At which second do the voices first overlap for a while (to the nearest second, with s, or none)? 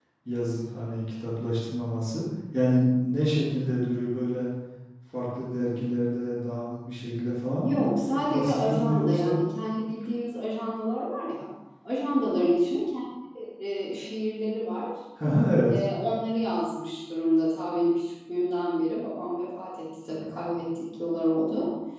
8 s